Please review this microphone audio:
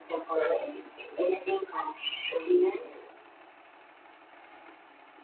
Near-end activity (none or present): none